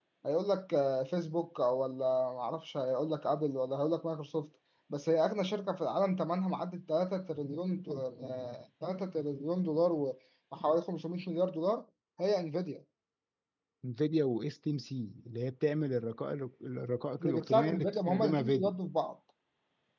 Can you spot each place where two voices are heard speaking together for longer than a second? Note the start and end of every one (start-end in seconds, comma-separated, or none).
17.2-18.7